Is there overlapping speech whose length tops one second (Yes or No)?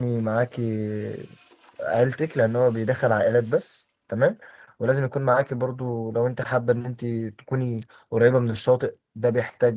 No